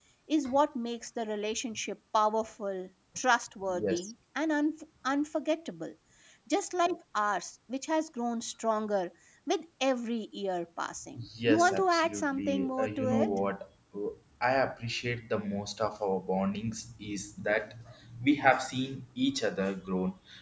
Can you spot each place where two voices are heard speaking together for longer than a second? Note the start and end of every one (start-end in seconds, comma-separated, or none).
11.5-13.3